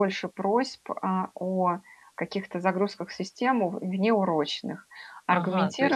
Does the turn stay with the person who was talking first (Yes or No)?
No